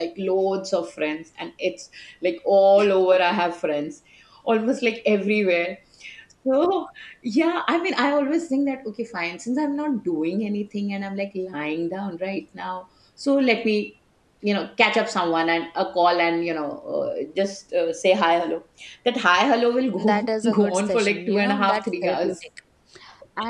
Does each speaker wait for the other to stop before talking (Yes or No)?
No